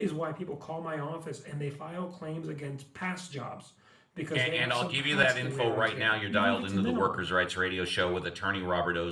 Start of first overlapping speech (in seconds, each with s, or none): 4.3 s